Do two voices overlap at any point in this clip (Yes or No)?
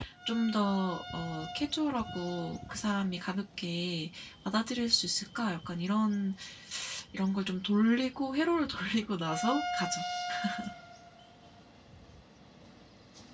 No